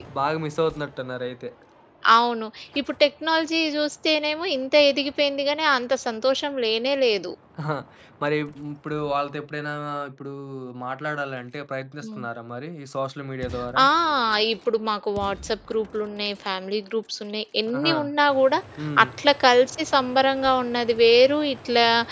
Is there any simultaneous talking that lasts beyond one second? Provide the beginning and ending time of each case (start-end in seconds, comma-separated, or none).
none